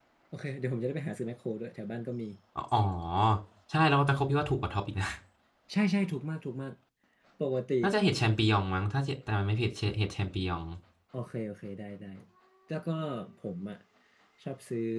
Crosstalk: none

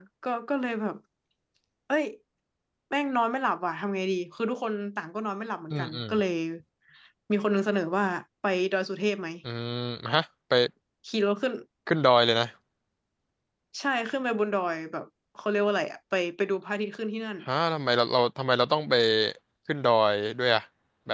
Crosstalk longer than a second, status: none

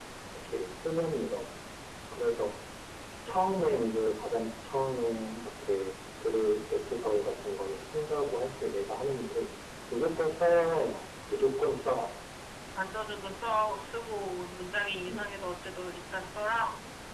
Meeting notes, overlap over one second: none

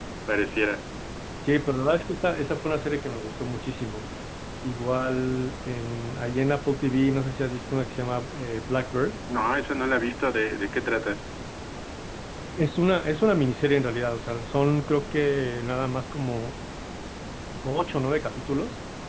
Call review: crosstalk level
none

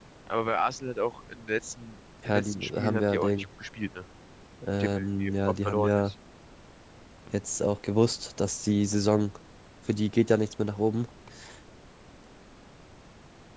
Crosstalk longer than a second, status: present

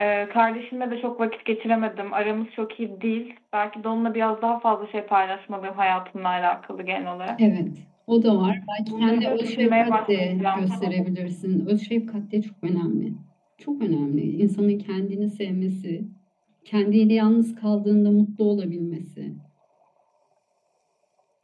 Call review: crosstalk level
present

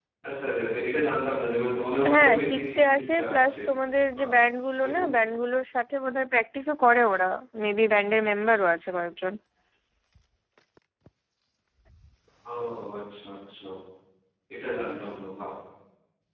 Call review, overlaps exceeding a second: present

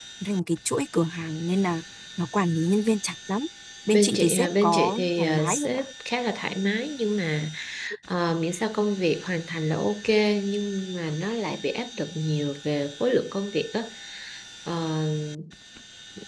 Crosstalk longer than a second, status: present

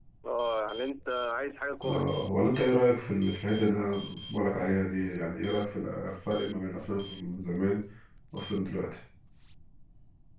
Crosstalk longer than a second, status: none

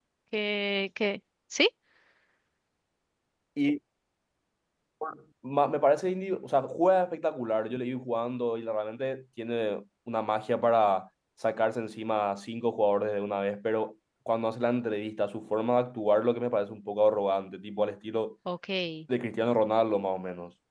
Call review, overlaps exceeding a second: none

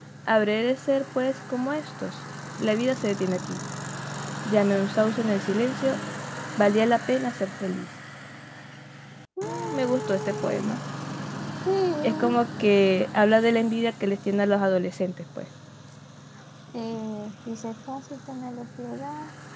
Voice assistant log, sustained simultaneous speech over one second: present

